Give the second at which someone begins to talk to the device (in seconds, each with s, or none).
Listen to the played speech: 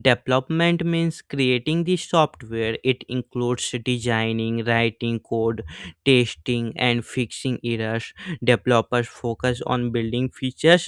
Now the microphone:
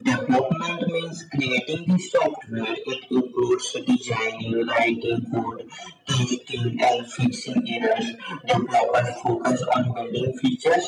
none